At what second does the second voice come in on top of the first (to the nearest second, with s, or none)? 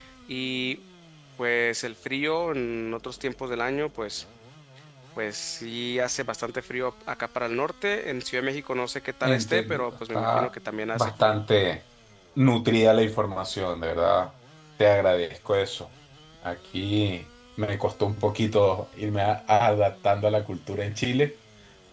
9 s